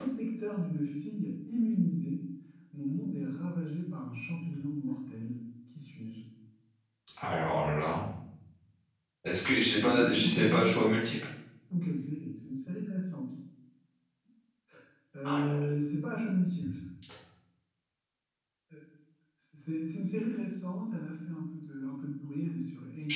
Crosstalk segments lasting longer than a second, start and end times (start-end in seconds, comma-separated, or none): 9.7-11.0